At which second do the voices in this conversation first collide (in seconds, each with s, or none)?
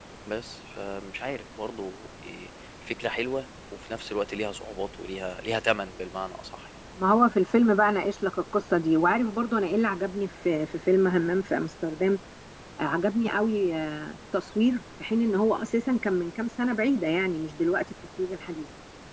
none